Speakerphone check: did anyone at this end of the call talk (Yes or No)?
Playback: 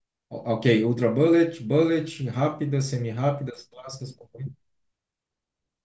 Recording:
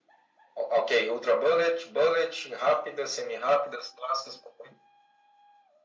No